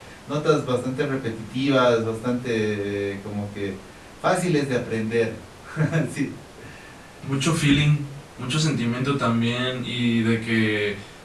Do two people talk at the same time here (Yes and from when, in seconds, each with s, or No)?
No